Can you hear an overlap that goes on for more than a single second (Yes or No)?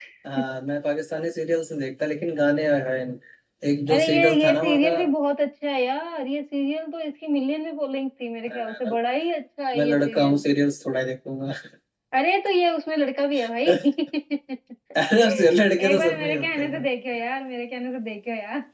Yes